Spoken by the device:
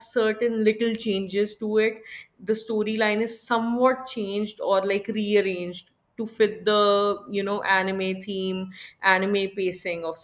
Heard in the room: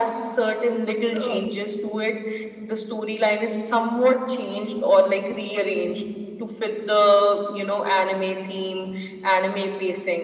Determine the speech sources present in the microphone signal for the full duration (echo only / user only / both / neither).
both